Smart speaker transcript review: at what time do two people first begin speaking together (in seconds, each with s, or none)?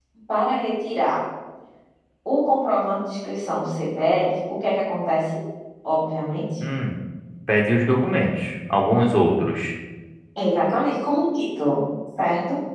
none